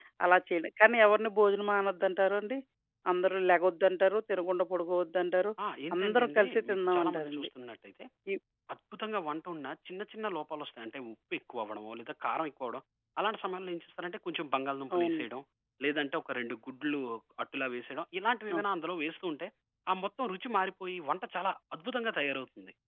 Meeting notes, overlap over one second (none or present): present